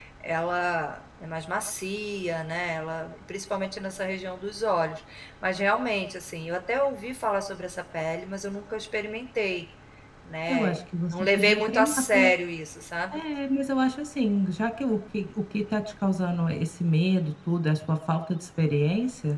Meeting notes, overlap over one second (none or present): present